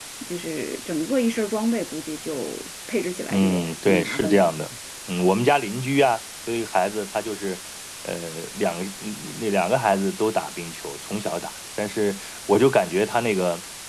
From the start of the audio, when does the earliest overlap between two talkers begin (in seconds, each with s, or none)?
3.3 s